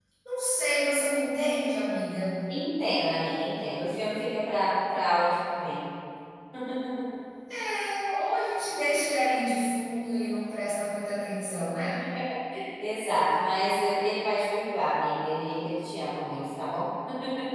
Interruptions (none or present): none